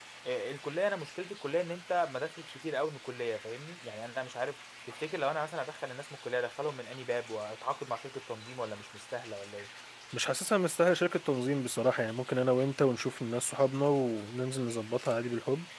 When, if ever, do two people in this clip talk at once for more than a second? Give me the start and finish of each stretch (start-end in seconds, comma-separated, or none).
none